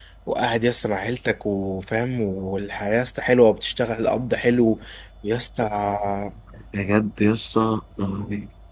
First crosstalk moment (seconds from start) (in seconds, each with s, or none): none